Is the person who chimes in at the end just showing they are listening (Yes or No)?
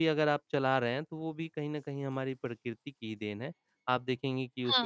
Yes